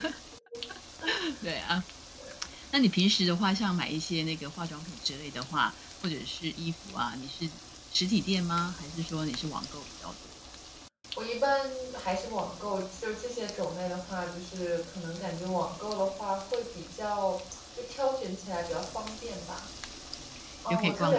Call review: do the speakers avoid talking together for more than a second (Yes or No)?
Yes